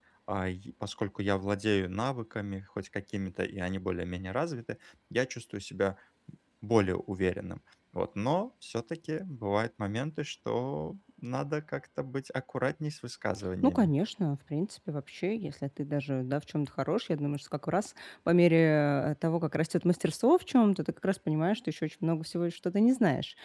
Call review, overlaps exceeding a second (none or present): none